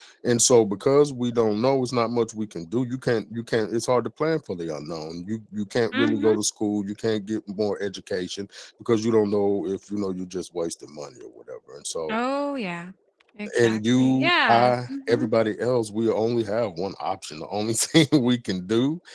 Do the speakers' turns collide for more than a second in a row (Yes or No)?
Yes